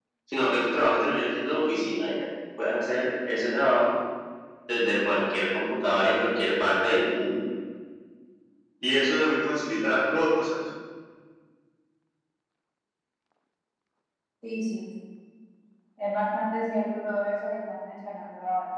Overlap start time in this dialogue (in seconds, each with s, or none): none